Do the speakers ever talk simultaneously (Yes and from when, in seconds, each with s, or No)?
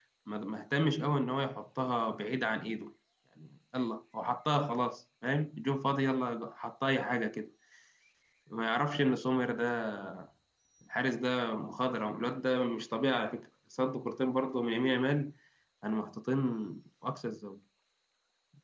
No